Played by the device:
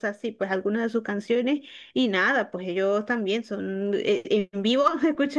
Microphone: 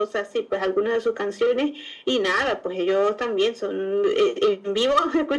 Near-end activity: none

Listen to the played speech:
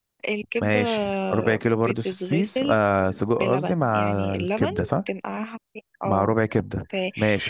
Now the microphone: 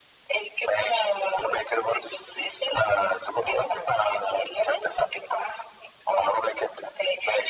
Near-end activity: none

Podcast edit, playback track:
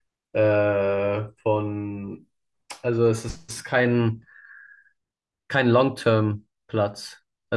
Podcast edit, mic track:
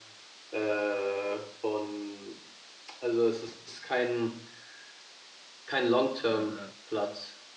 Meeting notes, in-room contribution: present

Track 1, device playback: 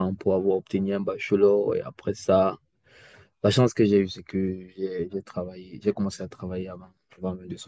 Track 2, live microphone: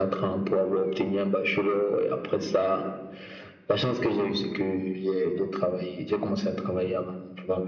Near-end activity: none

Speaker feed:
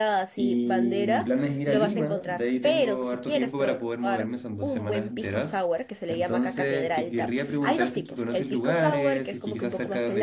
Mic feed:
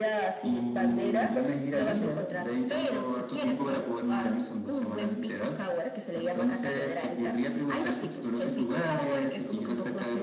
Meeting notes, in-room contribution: none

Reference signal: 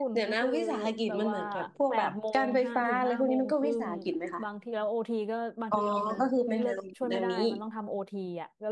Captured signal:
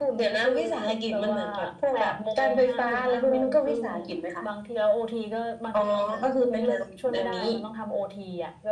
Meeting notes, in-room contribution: none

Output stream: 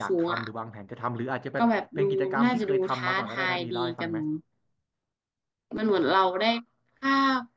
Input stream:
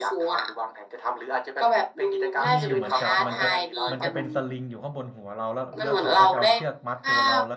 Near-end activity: present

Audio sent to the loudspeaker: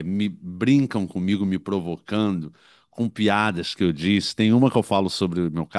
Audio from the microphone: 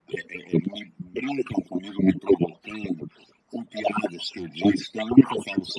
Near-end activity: none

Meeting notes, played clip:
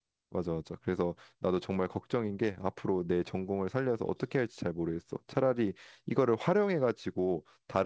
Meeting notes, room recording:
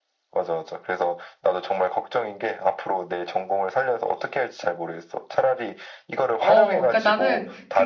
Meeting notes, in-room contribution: present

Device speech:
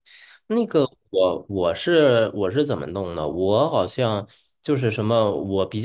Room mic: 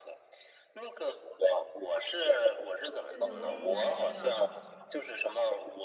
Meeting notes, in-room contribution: present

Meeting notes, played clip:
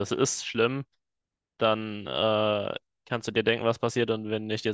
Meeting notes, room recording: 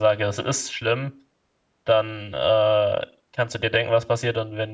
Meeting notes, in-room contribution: none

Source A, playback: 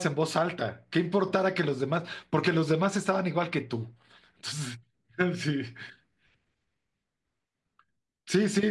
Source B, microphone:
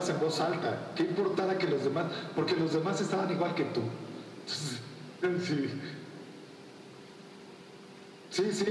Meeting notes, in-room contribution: none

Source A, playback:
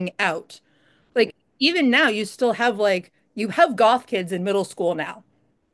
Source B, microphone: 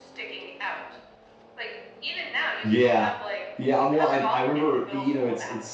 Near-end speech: present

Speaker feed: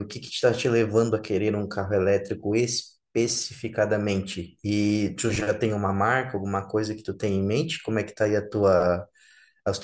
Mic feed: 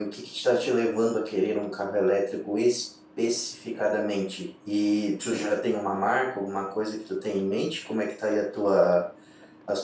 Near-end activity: none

